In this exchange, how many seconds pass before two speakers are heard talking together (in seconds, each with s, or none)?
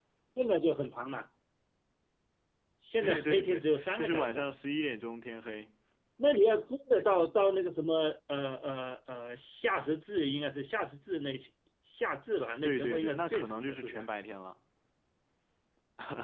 3.0 s